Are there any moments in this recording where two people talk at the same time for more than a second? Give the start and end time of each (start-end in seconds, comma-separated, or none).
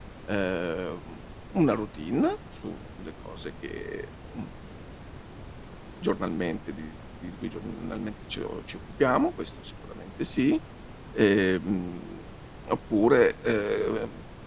none